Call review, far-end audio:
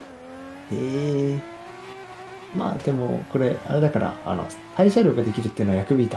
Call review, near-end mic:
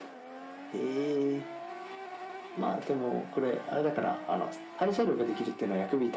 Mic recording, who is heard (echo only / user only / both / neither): echo only